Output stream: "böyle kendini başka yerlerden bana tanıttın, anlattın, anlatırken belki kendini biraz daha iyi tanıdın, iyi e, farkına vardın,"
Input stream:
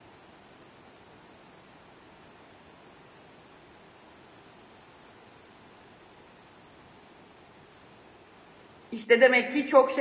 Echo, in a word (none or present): none